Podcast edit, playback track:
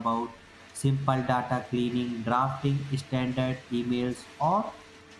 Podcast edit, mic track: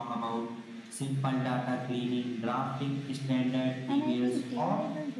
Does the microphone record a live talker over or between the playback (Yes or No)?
Yes